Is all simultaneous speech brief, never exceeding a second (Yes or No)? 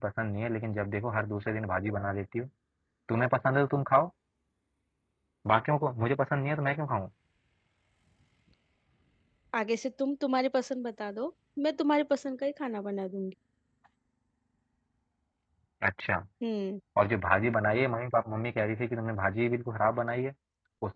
Yes